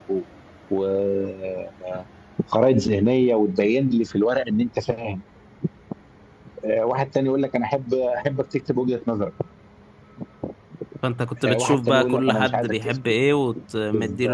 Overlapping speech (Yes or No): Yes